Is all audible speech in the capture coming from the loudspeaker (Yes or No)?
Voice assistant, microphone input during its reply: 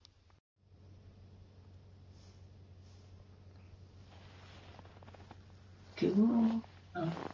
No